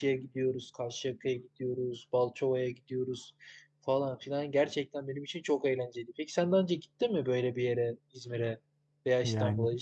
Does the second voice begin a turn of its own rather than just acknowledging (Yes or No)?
No